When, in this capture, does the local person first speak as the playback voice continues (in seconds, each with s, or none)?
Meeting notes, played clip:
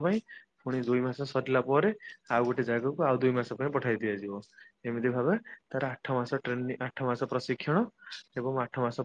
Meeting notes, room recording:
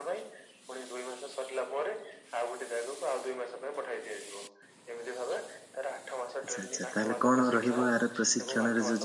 6.5 s